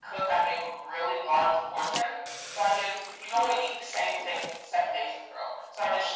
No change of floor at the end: Yes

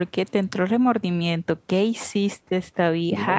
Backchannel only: No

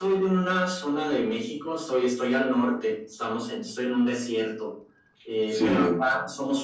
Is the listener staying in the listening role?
Yes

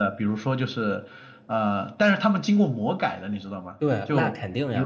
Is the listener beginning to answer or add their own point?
Yes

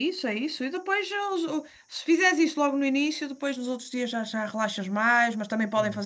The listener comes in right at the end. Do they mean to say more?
No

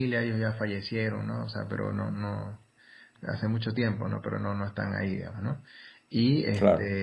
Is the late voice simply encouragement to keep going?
Yes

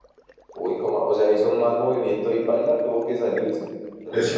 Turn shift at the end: Yes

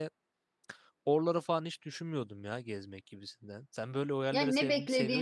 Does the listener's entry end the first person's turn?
Yes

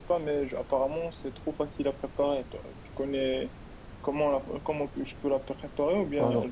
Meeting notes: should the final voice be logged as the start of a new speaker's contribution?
Yes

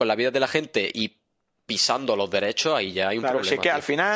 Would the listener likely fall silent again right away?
No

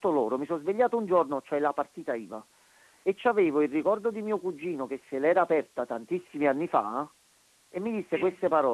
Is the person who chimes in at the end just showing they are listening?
Yes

